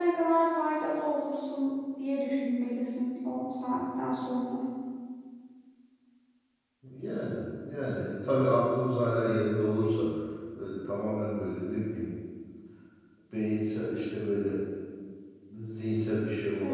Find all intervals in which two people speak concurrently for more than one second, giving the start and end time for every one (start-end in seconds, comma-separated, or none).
none